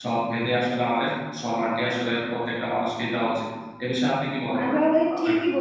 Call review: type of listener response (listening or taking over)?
taking over